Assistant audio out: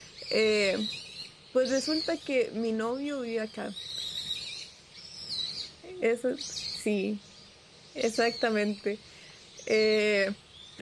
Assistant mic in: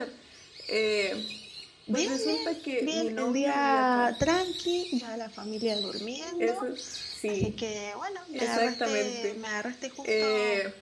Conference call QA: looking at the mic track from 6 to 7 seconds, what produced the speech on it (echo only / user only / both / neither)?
both